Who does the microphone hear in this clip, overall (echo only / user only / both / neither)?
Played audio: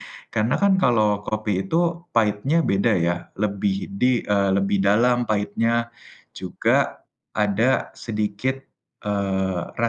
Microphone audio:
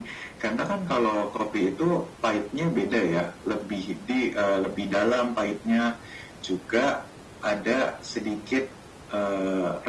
echo only